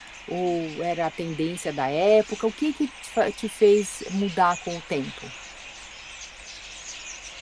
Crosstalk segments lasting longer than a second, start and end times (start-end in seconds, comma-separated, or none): none